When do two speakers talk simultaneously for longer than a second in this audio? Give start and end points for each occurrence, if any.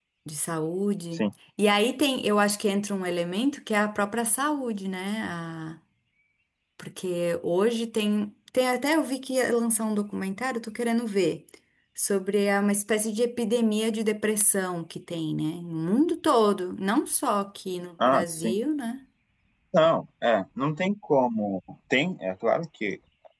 none

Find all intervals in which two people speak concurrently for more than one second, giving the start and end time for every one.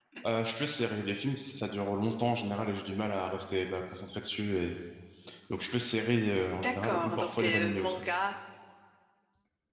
6.6-8.0

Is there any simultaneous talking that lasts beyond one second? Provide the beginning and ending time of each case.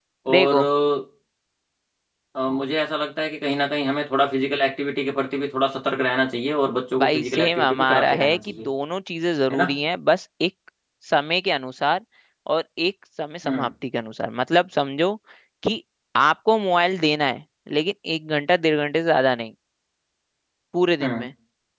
7.0-8.7

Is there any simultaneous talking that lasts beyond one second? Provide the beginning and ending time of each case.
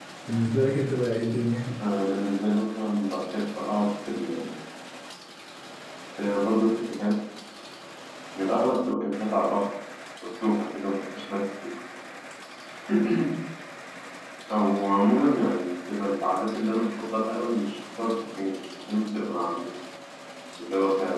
none

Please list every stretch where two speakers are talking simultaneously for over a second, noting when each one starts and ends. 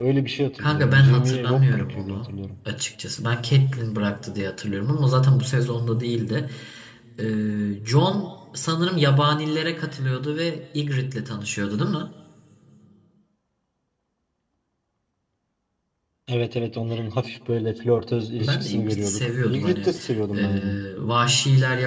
0.6-2.4, 18.4-19.9

